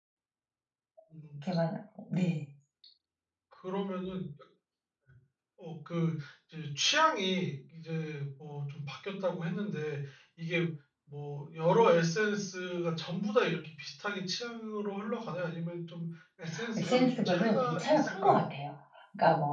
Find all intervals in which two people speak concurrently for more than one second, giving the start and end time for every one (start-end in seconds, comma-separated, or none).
16.8-18.4